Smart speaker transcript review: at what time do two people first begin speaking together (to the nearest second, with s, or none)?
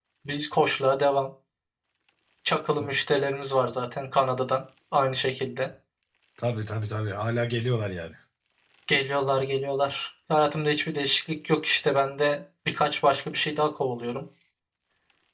none